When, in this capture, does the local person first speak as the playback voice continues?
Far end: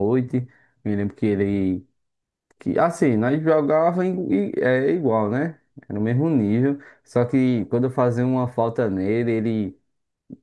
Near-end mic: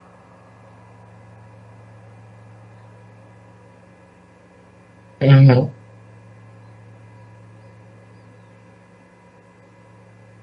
5.2 s

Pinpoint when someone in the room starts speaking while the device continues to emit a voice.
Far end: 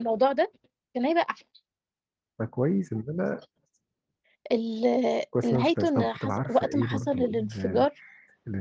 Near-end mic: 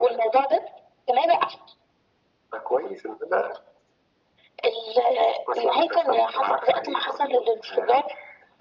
none

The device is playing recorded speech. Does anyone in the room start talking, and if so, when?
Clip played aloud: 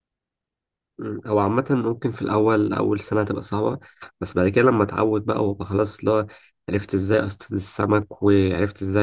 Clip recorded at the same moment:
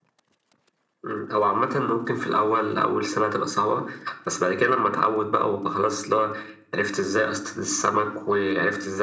none

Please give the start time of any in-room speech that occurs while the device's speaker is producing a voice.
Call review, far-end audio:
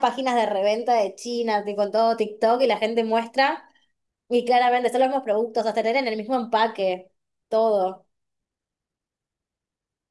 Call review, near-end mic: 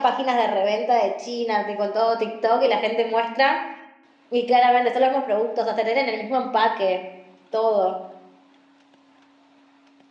none

